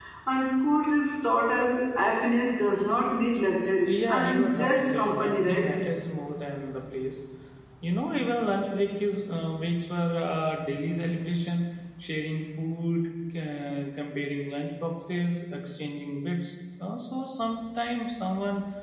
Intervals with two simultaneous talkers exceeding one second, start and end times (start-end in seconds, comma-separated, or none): 3.9-5.7